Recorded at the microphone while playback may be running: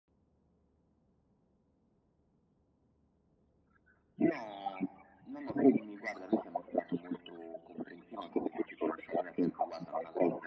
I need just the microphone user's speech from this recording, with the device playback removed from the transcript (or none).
none